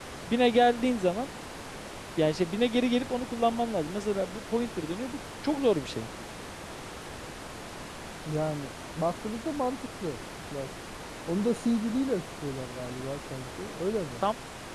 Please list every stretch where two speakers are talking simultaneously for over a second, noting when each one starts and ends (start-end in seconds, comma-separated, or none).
none